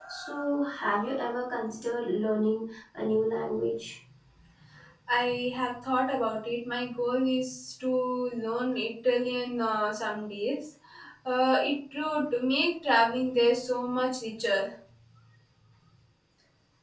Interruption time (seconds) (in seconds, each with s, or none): none